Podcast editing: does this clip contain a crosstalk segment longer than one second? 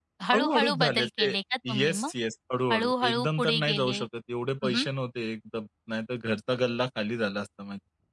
Yes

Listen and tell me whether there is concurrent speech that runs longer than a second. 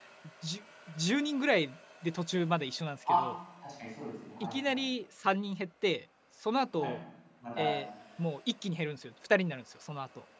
No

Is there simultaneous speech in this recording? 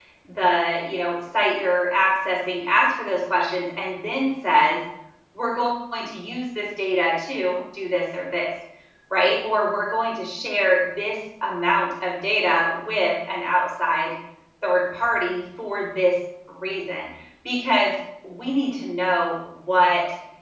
No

